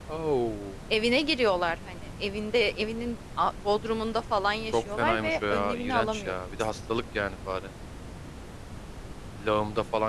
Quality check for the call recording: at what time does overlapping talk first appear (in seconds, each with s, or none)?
4.7 s